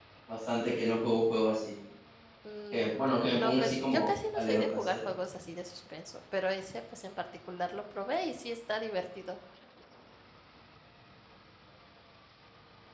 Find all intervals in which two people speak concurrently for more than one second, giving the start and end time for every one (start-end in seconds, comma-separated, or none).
3.4-5.0